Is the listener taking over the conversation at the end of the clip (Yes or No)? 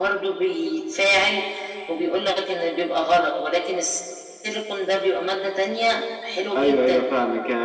Yes